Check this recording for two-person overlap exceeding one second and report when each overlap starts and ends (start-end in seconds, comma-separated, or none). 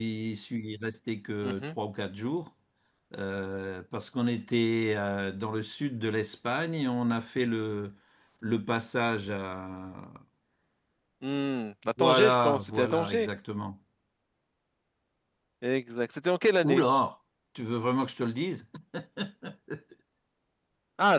12.0-13.3